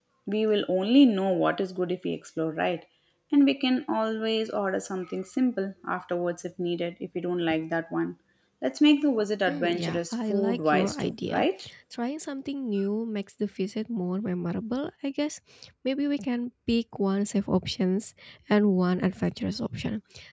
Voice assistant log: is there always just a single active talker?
No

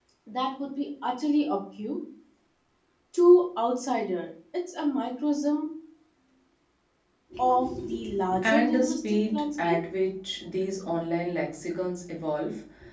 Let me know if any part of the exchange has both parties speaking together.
Yes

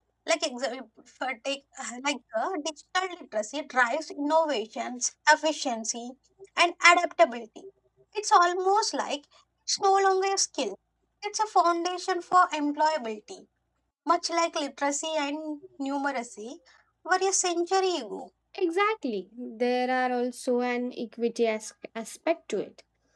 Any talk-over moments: No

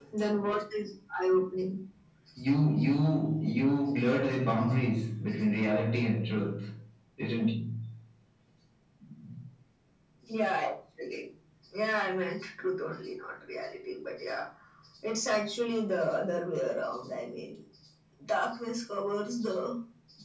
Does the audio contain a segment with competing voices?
No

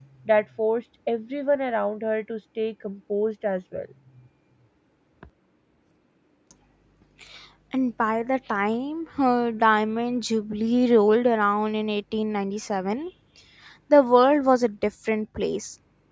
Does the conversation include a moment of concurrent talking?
No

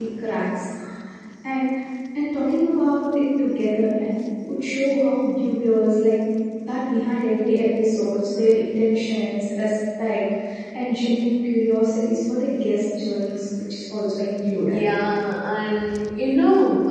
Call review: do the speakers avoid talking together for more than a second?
Yes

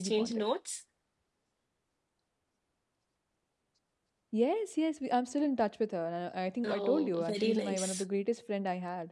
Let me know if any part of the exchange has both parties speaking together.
Yes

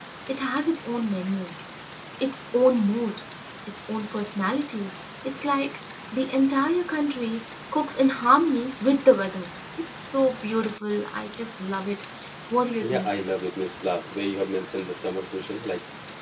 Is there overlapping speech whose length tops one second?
No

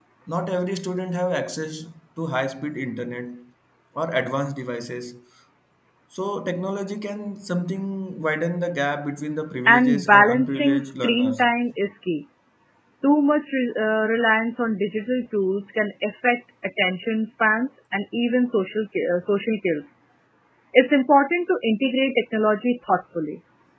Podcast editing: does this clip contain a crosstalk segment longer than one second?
Yes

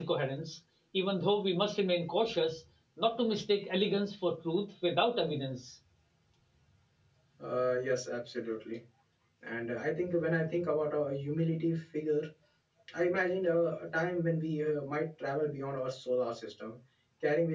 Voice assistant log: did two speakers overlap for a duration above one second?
No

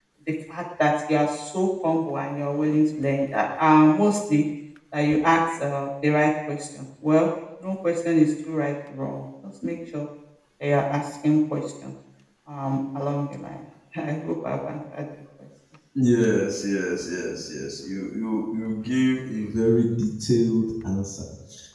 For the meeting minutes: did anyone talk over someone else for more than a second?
No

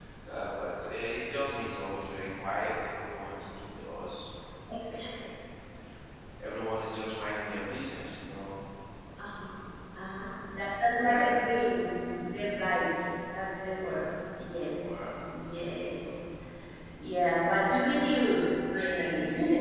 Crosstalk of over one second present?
No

